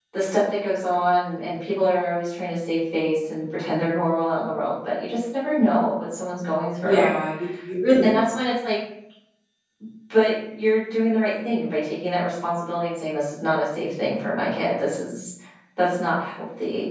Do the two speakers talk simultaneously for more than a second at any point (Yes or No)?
No